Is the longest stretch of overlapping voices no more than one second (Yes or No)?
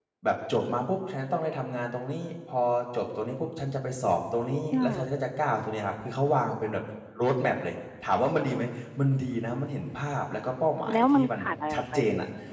No